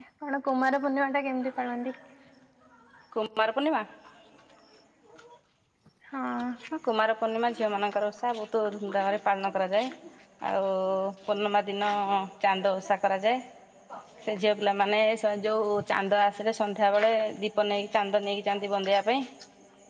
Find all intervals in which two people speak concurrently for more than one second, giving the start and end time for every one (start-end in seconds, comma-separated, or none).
none